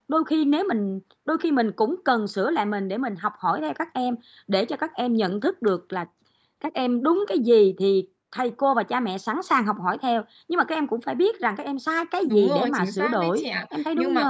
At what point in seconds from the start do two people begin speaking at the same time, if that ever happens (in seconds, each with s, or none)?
12.2 s